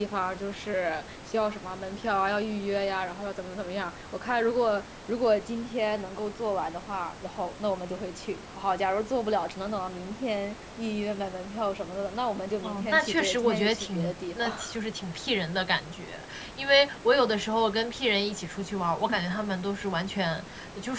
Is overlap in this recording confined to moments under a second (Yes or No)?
No